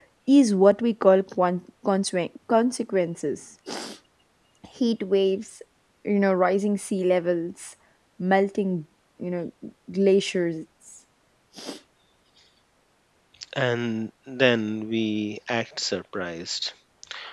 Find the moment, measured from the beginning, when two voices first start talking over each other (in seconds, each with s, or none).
none